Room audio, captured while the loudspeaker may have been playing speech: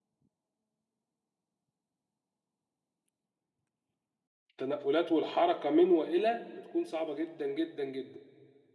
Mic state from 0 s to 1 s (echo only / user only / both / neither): neither